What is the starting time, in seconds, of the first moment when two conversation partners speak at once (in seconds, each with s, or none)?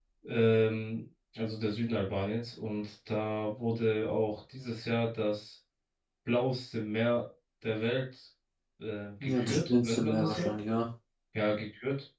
9.2 s